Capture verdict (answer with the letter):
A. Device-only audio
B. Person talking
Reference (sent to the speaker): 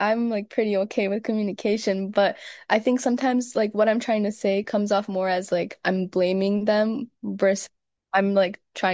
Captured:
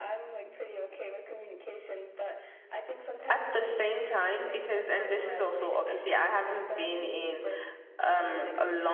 B